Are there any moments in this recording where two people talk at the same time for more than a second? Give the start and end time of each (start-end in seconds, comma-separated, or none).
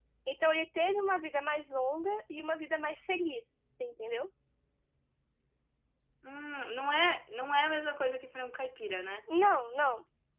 none